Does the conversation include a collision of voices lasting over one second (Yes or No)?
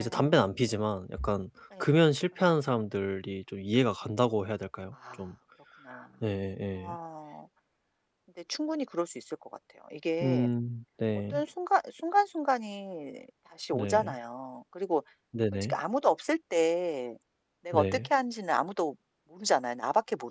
No